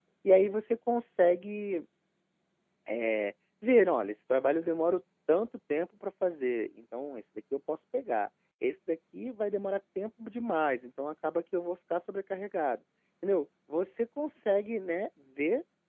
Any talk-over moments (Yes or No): No